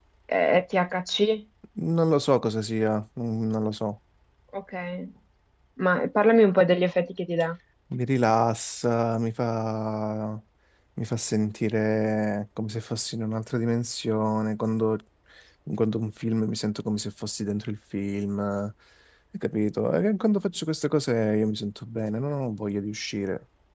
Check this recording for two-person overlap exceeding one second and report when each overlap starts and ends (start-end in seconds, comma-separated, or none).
none